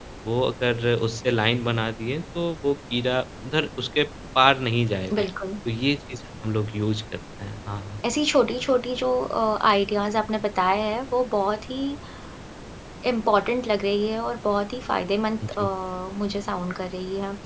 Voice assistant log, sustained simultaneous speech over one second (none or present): none